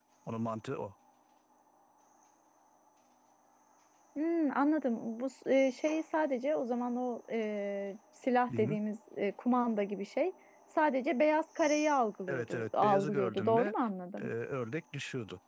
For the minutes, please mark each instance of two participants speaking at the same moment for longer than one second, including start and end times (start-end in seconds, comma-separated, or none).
12.3-13.7